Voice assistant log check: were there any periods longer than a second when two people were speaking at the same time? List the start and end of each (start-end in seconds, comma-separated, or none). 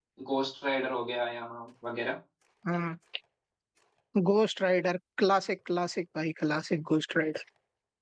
none